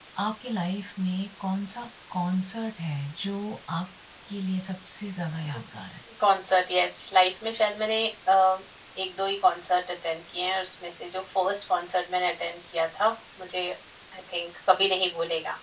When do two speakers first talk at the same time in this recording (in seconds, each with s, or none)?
none